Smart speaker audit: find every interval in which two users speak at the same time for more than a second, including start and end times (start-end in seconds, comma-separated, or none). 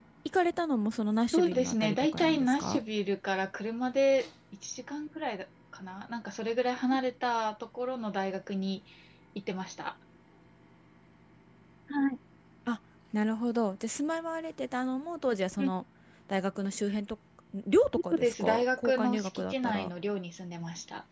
1.3-2.8, 18.1-19.9